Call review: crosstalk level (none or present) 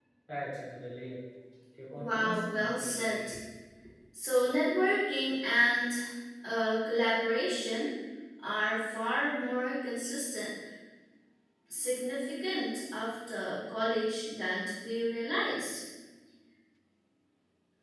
present